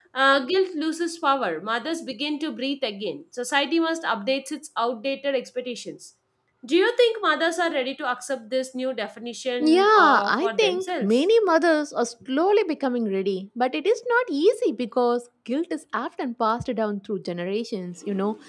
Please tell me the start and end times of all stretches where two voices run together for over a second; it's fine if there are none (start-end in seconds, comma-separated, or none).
9.6-11.2